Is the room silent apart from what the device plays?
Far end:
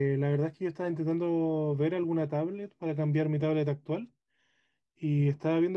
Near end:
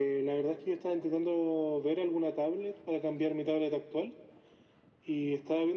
Yes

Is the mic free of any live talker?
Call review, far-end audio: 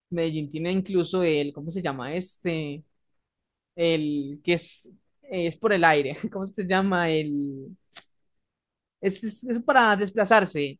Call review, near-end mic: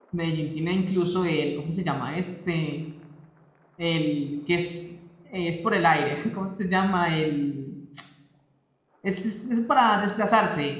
Yes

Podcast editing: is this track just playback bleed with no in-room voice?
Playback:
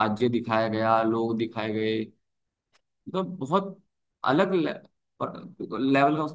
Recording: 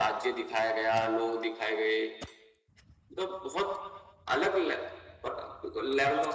Yes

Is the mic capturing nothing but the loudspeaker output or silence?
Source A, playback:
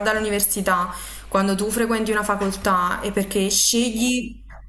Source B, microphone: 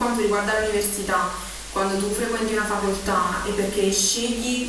Yes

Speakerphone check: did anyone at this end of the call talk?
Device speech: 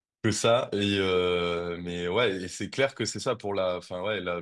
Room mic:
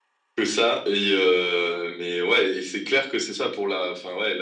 No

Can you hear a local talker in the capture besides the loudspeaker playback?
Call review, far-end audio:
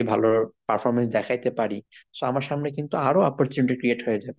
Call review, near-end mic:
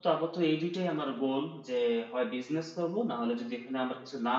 Yes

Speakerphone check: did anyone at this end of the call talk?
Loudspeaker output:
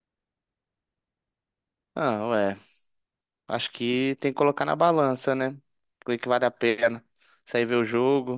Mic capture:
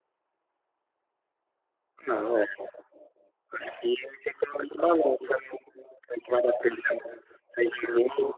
No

